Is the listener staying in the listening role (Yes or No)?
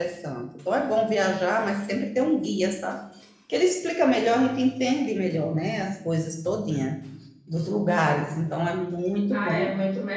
No